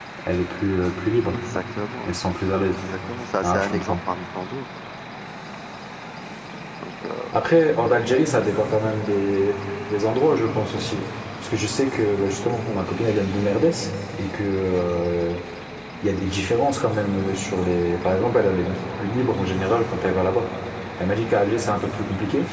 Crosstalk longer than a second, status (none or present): none